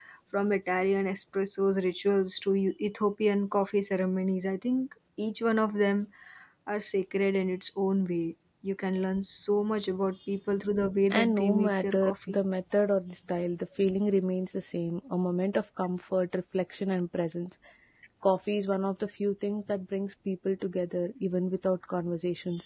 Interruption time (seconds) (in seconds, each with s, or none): 11.1 s